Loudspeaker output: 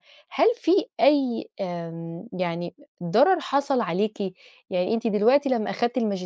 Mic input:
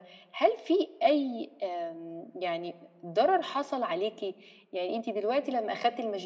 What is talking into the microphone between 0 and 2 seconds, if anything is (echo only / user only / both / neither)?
echo only